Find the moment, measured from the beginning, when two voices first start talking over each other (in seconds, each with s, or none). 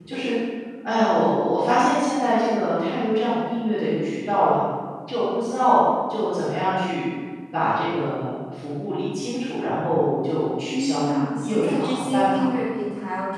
10.7 s